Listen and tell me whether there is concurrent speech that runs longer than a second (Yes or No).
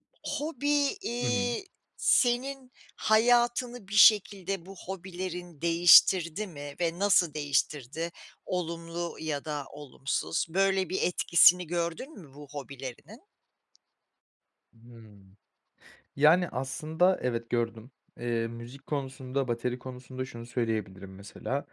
No